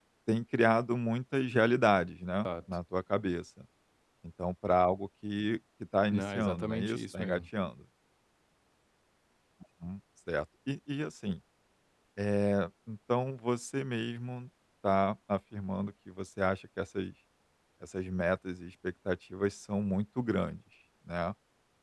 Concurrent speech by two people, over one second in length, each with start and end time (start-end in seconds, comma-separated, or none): 6.1-7.4